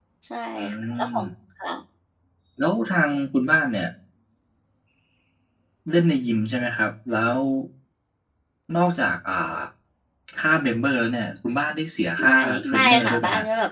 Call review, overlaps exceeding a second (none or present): present